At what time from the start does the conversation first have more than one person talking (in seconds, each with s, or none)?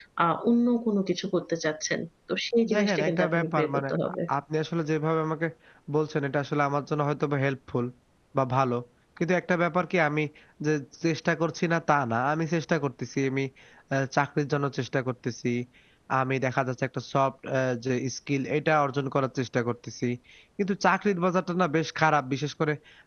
2.6 s